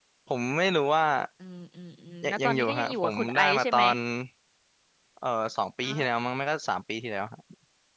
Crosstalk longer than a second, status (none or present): present